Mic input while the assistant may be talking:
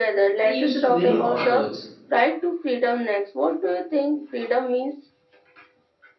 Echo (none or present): present